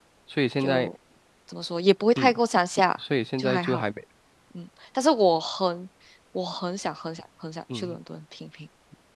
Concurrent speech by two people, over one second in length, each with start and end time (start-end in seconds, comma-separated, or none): none